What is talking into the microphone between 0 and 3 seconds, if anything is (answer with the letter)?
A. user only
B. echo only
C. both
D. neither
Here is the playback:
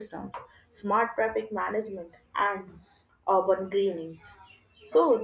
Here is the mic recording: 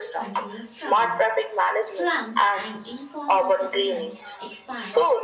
C